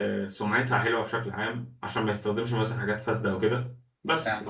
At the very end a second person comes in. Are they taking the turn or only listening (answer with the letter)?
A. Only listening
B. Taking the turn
A